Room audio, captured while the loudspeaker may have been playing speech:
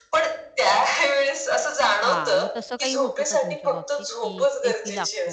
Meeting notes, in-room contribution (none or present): present